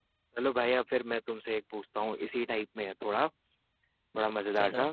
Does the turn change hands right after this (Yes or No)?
No